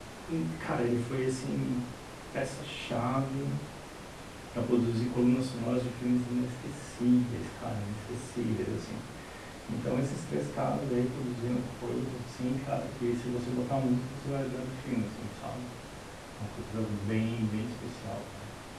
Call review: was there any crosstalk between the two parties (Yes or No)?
No